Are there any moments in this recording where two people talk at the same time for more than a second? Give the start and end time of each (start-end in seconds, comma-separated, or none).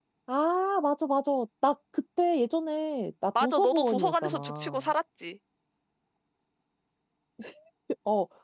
3.4-4.9